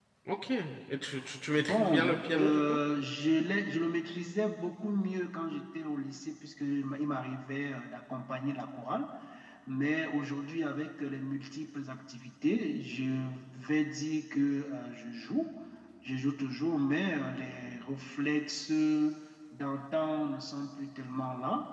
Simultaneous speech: Yes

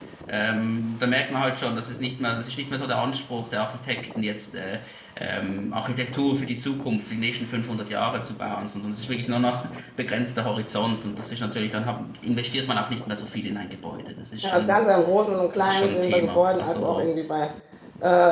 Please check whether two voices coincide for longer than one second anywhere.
Yes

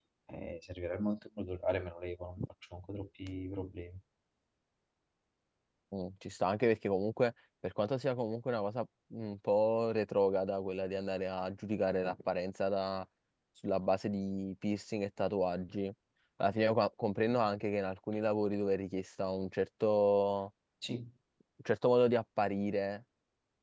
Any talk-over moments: No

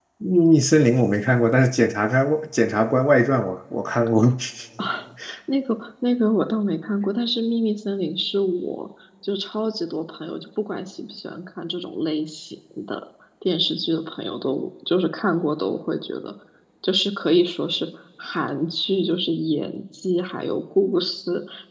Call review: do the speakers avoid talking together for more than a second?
Yes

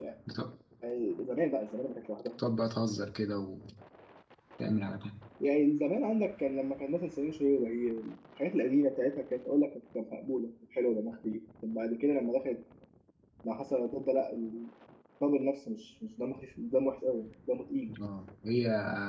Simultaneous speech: No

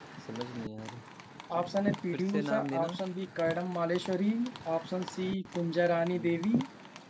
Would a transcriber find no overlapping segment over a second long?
No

